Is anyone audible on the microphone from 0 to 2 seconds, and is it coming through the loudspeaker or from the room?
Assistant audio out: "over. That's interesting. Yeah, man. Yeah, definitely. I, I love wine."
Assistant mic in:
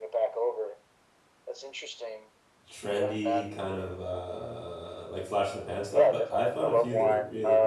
echo only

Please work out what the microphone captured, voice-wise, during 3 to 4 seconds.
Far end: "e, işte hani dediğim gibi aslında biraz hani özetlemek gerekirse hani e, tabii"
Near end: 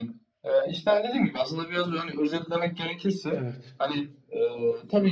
both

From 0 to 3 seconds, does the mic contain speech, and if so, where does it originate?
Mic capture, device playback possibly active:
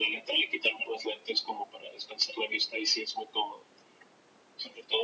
echo only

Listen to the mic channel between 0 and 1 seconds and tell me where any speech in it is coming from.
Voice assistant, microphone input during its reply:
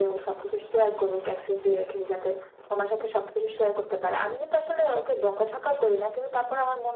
echo only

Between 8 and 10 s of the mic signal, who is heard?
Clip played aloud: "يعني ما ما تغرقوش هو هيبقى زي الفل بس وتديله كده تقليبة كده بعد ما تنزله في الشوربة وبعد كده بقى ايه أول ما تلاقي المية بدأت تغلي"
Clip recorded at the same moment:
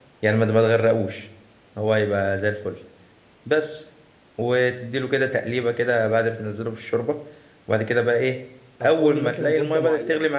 both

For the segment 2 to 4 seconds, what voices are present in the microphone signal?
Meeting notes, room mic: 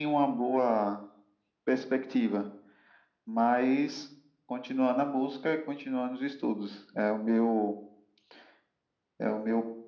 echo only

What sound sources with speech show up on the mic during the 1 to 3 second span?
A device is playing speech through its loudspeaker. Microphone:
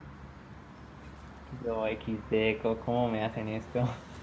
user only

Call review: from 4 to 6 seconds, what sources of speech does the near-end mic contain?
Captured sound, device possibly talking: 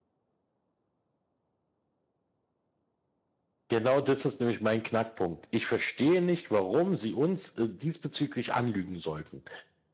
user only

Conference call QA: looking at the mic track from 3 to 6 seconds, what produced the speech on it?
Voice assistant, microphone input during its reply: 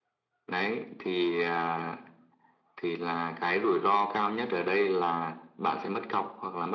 echo only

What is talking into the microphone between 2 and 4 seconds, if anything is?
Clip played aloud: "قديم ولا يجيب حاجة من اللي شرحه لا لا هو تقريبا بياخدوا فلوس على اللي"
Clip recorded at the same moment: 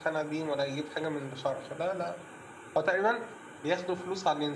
echo only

